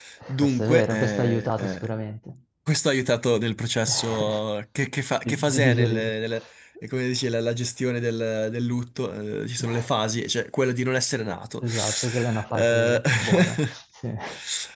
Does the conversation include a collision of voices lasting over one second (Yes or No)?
Yes